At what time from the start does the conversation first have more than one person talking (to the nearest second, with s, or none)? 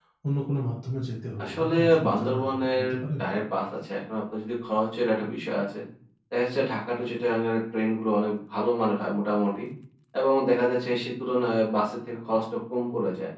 1 s